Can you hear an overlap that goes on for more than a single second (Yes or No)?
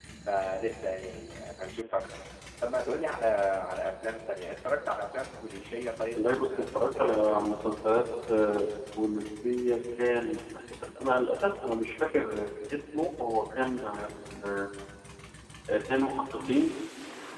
Yes